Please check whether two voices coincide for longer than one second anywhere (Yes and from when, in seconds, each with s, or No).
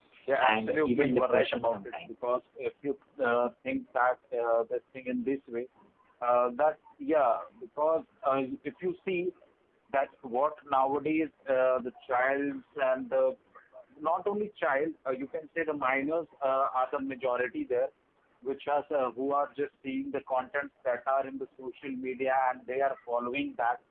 Yes, from 0.5 s